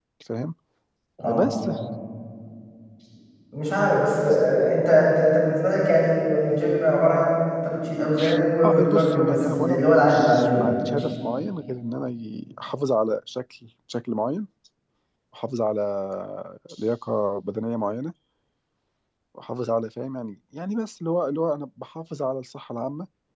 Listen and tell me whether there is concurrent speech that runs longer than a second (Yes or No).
Yes